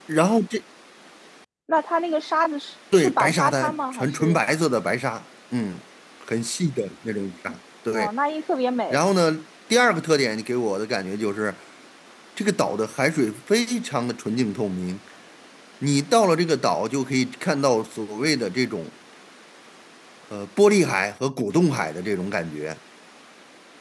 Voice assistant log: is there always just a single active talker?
No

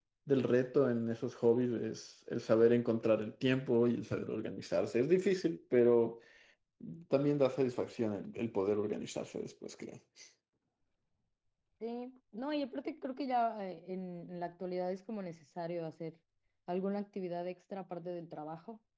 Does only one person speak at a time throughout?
Yes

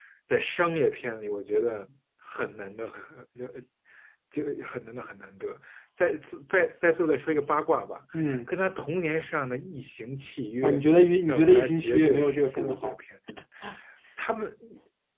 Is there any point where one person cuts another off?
Yes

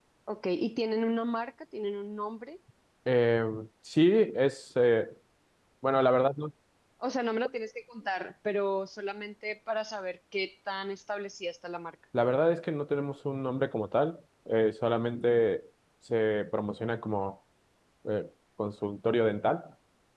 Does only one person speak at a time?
Yes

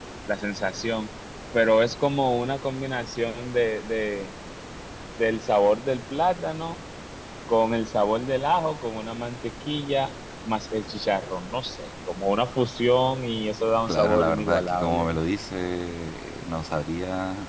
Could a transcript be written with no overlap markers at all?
No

